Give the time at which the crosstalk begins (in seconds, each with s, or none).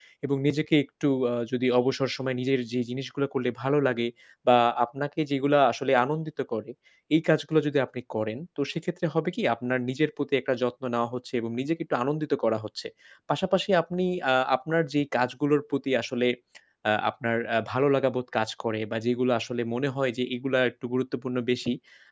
none